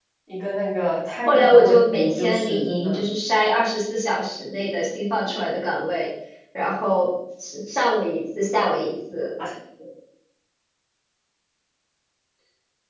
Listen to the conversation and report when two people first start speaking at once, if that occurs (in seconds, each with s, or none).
1.3 s